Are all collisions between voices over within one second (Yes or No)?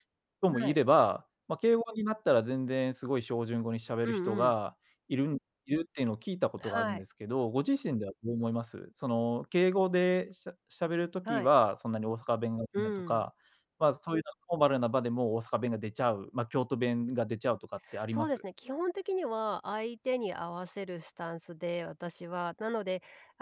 Yes